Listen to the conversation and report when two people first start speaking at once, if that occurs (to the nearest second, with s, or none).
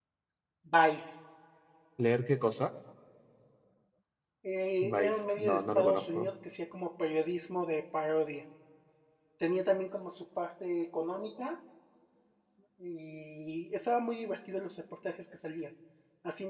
5 s